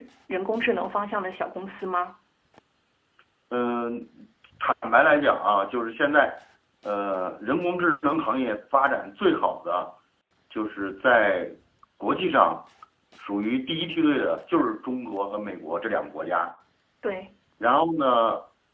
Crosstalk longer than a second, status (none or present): none